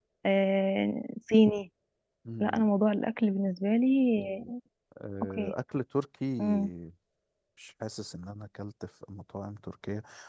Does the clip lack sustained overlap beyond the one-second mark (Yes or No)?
Yes